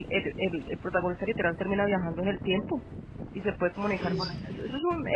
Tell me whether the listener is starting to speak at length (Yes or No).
No